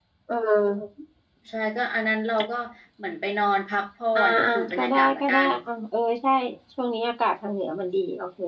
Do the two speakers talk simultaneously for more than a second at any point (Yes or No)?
Yes